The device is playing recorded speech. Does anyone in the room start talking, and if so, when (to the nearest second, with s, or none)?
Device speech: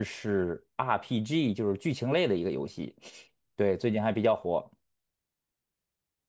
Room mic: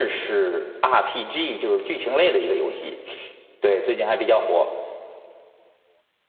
none